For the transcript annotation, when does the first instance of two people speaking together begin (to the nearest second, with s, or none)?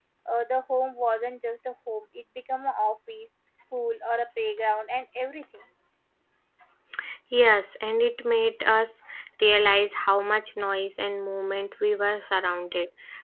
none